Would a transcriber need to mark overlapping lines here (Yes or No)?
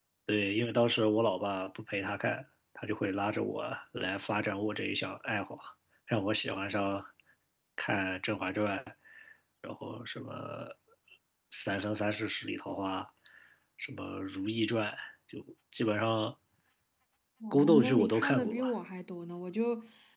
Yes